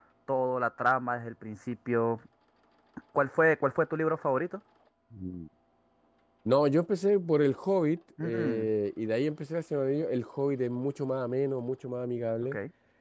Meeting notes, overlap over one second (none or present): none